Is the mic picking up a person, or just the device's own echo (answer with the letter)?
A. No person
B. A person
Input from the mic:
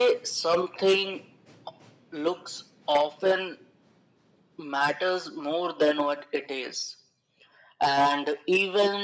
A